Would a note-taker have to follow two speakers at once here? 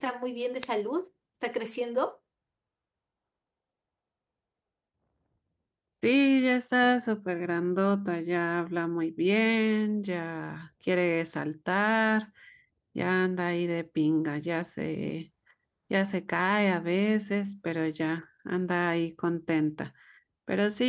No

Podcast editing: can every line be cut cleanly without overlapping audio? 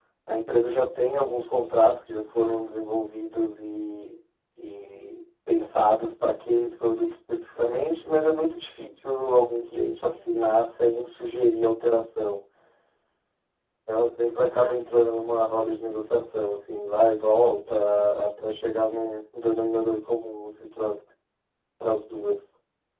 No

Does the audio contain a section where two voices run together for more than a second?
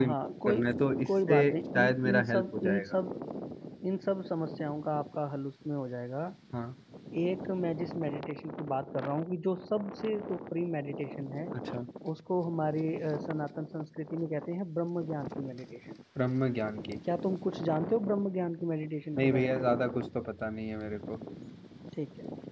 Yes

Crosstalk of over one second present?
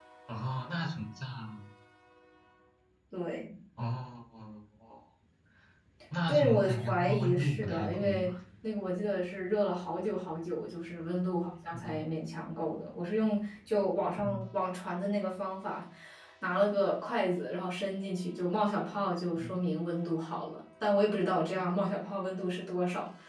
Yes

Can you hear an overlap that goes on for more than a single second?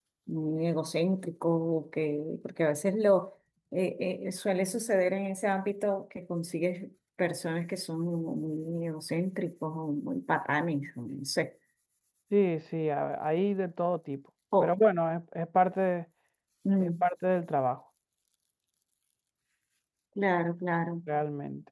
No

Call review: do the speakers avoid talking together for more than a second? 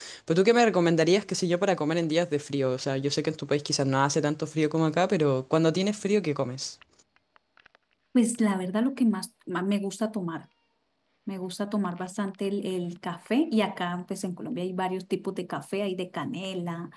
Yes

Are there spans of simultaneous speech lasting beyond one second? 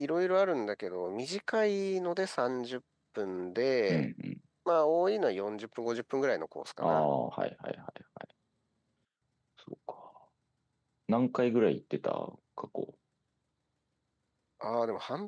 No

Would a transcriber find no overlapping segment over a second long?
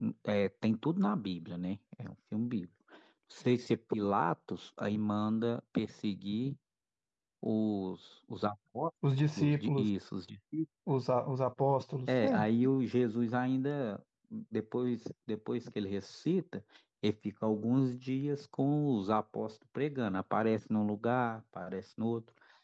Yes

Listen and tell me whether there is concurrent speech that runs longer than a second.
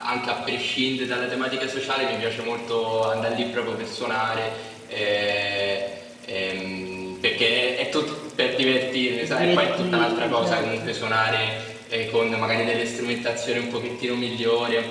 Yes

